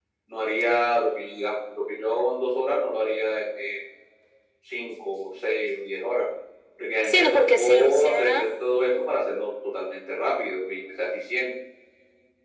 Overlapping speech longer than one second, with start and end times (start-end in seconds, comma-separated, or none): 7.0-8.5